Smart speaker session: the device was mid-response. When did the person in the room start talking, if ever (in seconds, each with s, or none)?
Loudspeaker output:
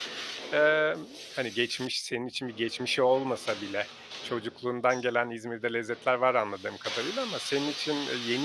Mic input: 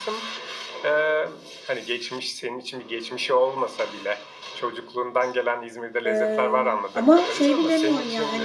6.0 s